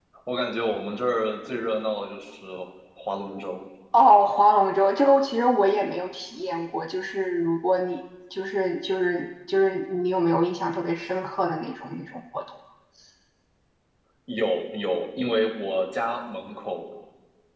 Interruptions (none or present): none